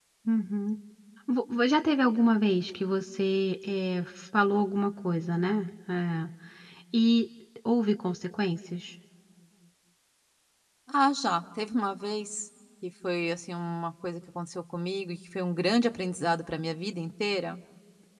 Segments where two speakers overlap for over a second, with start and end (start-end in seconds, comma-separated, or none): none